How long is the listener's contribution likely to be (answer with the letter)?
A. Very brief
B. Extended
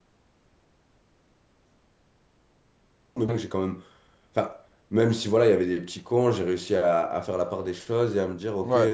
A